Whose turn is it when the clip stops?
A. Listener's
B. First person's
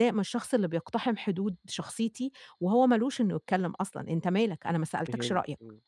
A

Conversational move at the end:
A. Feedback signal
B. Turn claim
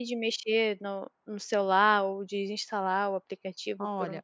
B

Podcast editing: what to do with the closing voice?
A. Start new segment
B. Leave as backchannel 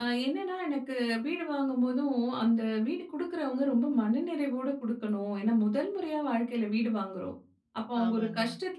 B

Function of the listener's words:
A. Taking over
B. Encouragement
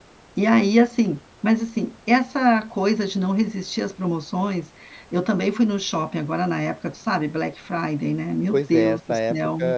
A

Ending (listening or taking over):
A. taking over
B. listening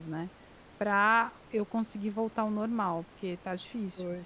A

